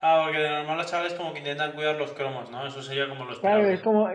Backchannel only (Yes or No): No